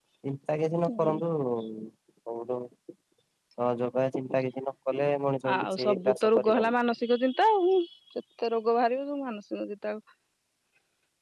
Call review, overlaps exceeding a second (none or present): present